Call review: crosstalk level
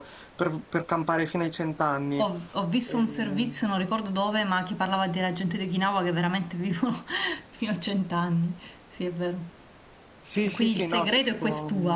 present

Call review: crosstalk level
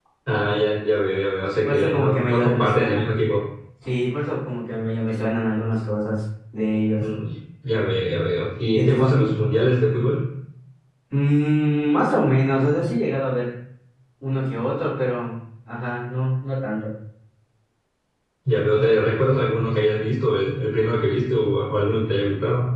present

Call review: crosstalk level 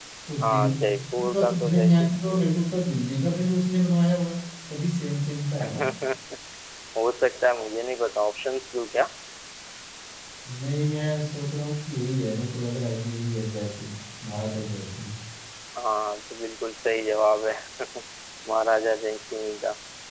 present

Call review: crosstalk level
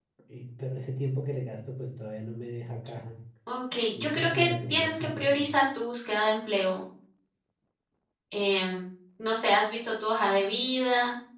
present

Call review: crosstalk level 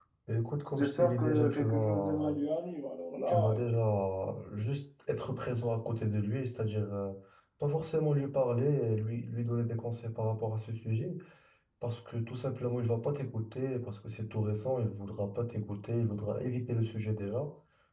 present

